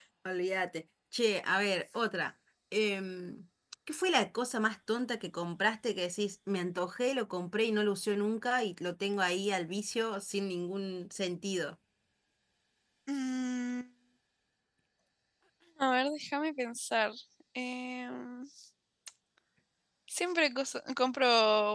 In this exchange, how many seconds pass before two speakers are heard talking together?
none

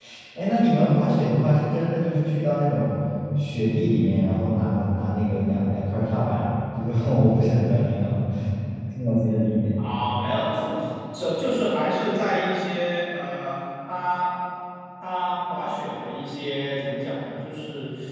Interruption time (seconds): none

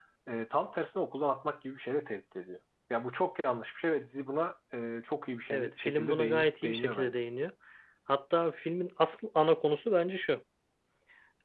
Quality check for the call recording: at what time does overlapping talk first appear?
6 s

